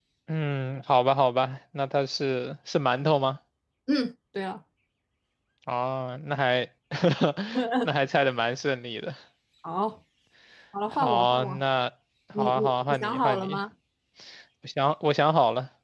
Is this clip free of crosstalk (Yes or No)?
No